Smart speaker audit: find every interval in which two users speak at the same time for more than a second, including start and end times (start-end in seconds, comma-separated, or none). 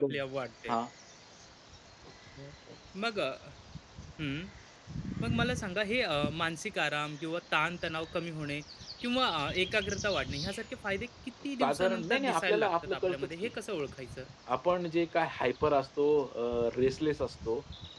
11.6-13.5